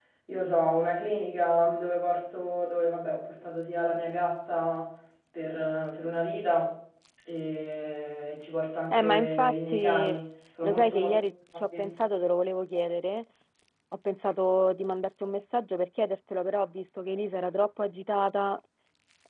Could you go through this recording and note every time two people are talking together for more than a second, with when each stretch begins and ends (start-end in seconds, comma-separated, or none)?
8.9-10.2